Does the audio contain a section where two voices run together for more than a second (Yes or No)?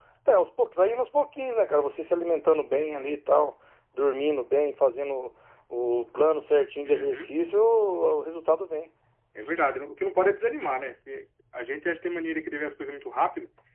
No